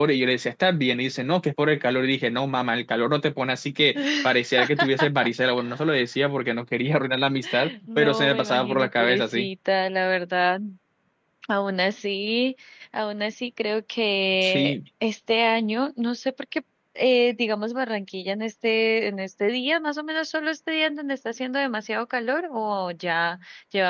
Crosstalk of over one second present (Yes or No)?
Yes